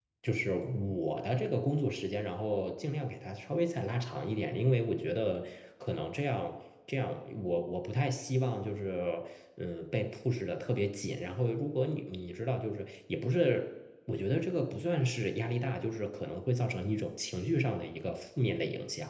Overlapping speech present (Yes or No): No